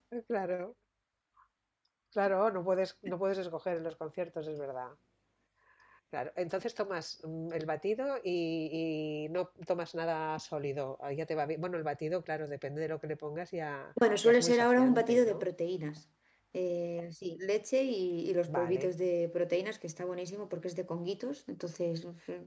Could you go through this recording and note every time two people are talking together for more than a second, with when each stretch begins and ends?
14.2-15.4

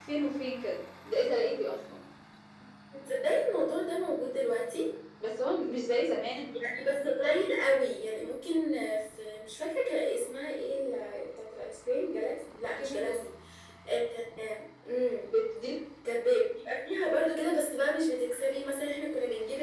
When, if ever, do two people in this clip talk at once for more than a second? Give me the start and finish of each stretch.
none

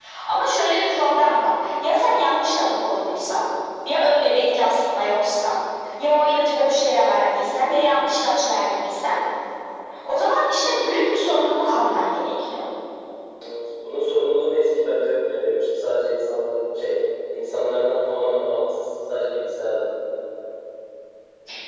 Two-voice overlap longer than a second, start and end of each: none

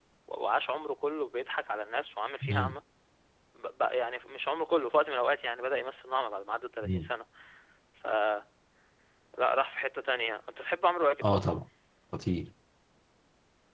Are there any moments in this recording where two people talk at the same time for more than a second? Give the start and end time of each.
none

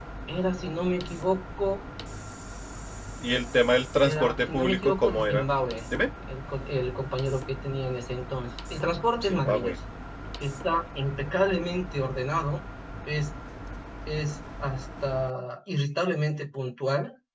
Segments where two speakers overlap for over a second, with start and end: 4.0-5.5

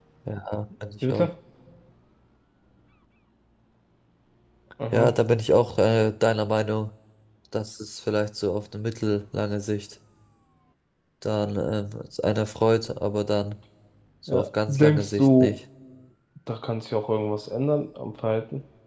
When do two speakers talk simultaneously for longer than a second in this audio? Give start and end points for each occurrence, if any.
14.3-15.5

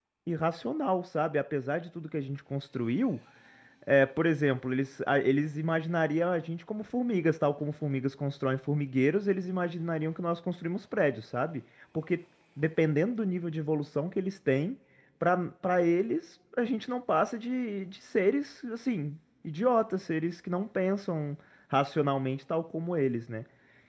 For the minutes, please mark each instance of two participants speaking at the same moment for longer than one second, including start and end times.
none

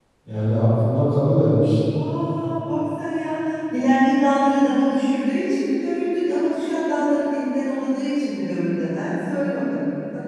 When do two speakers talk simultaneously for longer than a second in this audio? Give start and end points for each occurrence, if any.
none

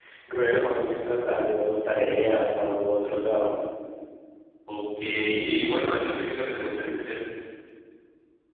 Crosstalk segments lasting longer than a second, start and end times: none

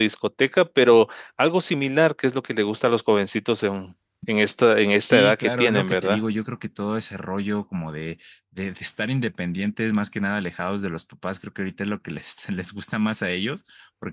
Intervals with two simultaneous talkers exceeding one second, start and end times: 5.0-6.2

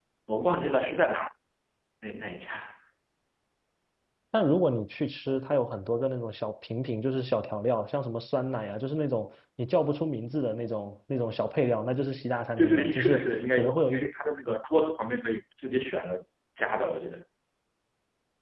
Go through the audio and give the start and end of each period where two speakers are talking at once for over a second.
12.6-14.1

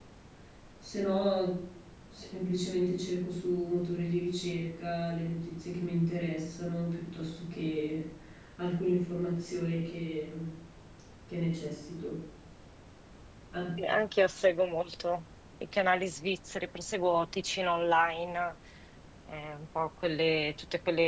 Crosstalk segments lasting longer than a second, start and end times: none

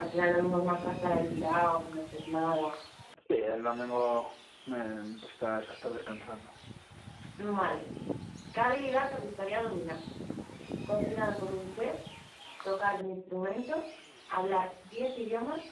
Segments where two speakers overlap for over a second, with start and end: none

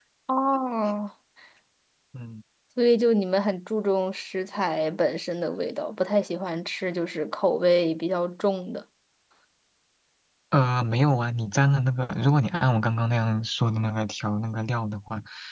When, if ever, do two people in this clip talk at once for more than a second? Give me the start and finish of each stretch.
none

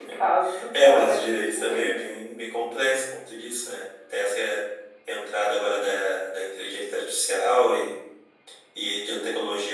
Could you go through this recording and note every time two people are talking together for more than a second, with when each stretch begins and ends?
0.7-2.0

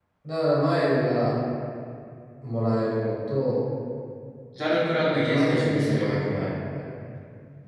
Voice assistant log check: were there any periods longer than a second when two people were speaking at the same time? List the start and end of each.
5.1-6.5

